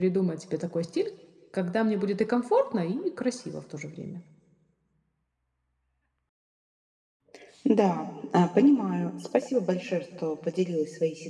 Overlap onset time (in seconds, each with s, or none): none